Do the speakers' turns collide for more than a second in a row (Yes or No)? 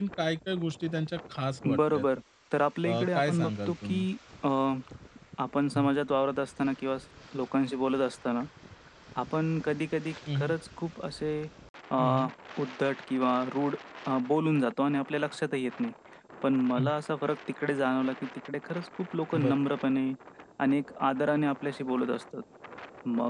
Yes